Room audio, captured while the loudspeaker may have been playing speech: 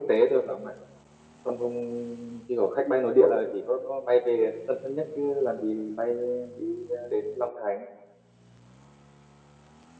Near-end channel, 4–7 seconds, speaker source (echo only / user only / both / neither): echo only